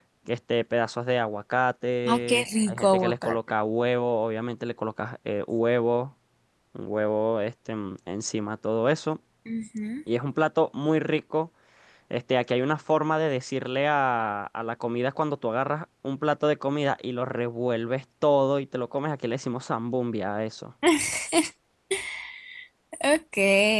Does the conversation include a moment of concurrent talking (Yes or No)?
Yes